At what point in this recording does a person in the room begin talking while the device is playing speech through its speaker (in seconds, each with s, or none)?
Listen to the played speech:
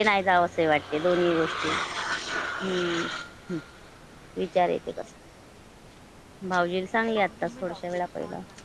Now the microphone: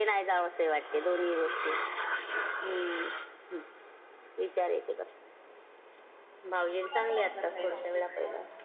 6.8 s